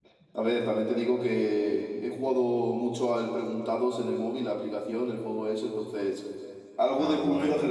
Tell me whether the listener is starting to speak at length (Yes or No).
Yes